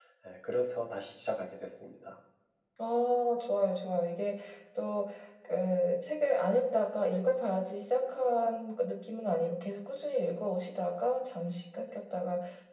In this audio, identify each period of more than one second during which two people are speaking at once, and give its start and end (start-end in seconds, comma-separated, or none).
none